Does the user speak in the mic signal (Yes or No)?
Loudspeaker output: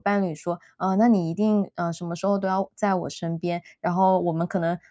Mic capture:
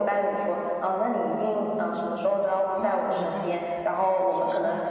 Yes